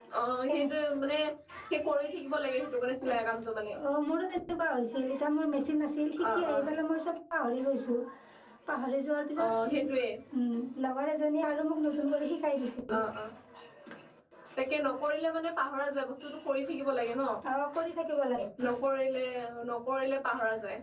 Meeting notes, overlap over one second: none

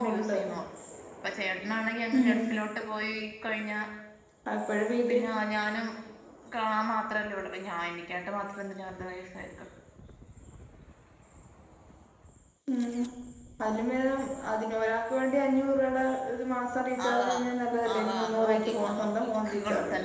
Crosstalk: present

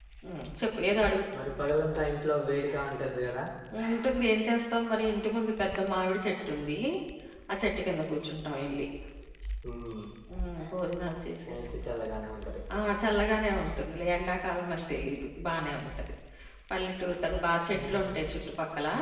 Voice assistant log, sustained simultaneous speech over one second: none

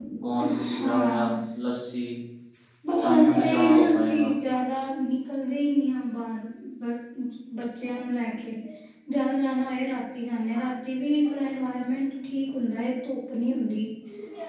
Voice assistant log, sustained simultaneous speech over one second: present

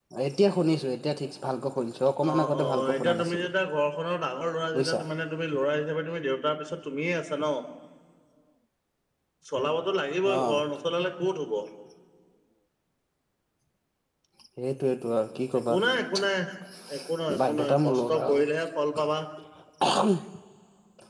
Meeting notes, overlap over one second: present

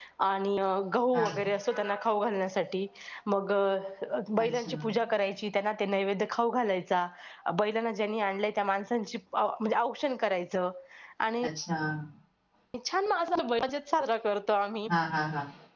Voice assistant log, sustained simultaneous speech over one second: none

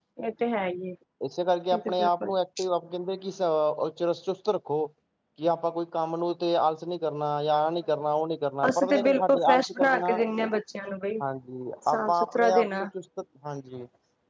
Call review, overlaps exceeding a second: present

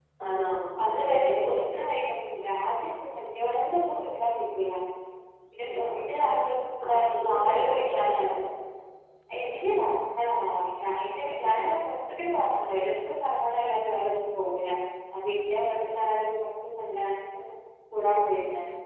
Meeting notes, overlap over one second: present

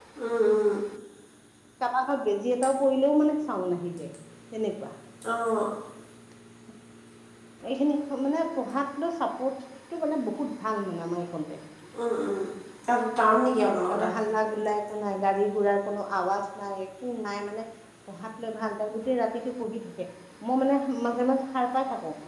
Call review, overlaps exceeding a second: none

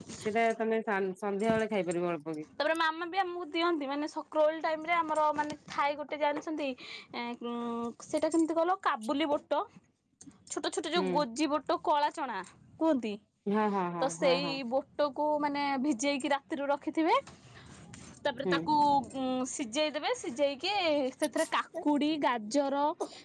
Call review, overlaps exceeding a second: none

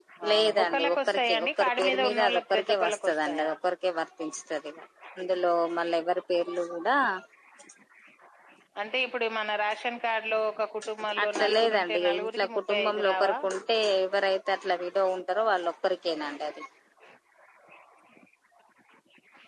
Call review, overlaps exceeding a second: present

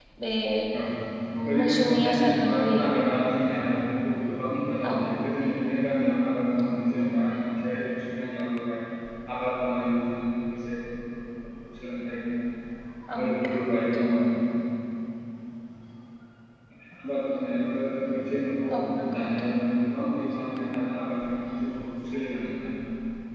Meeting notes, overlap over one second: present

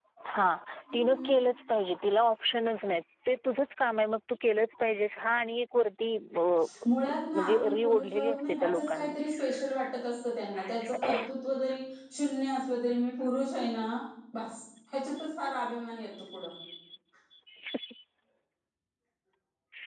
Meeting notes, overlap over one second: present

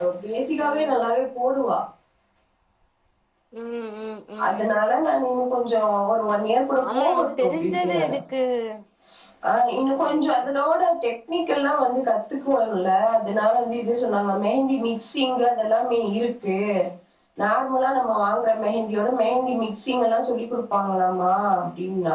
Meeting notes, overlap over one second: present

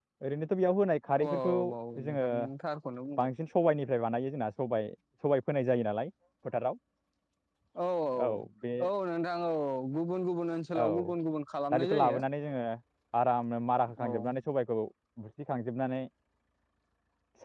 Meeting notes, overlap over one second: none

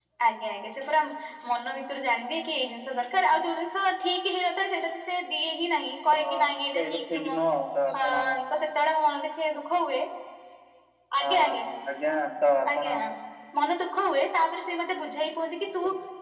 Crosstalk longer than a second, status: present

